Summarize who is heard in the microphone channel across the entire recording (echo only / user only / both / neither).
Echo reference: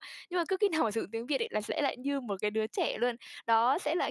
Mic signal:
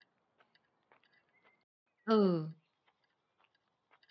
user only